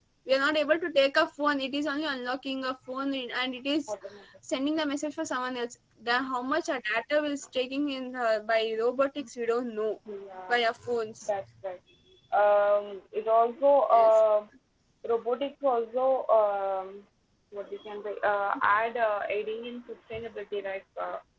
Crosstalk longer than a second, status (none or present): none